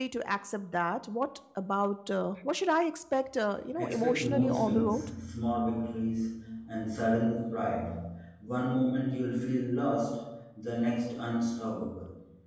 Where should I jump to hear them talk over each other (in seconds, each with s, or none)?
3.8 s